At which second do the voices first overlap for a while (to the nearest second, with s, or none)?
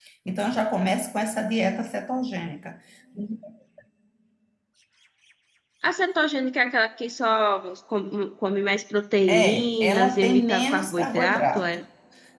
9 s